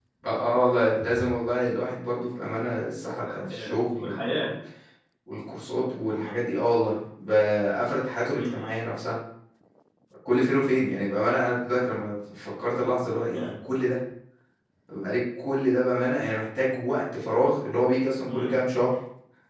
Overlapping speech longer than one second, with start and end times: 3.2-4.5

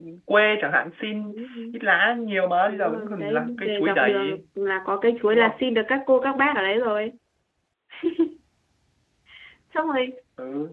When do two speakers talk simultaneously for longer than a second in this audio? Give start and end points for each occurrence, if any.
2.7-4.4

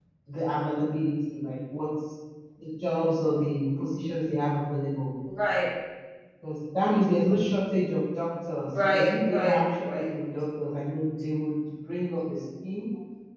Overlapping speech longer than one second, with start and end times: 8.8-10.0

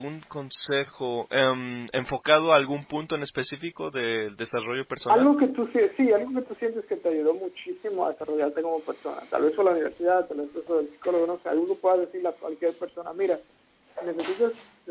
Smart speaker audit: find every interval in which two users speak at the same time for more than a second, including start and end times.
none

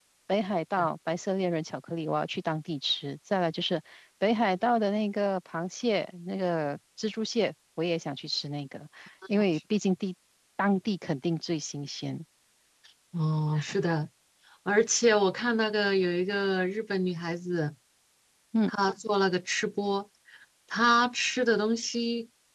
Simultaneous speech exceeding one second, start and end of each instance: none

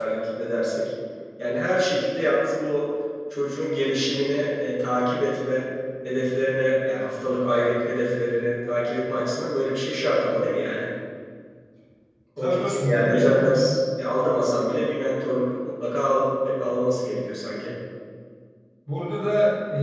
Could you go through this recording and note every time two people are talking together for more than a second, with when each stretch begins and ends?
12.4-13.7

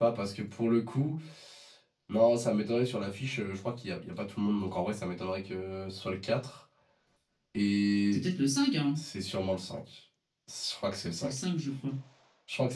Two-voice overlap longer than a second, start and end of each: none

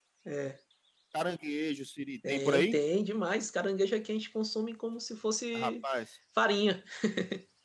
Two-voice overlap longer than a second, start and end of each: none

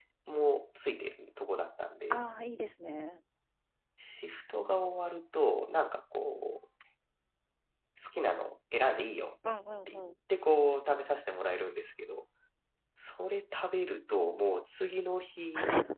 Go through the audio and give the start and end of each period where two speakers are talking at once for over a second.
none

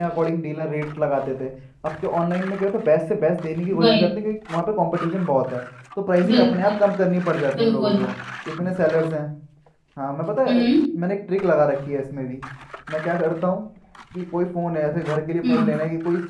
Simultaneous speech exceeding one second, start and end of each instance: none

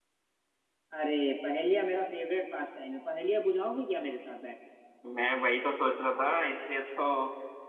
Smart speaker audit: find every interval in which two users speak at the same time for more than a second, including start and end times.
none

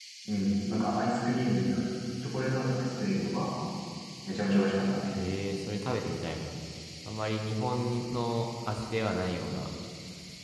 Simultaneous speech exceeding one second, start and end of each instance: none

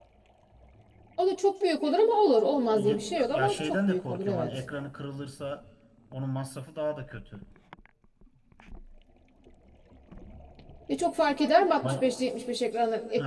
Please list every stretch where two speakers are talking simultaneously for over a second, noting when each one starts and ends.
2.7-4.5

